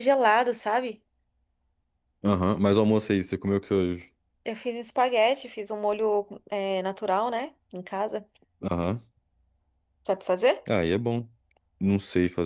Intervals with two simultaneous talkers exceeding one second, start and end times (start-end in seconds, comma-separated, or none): none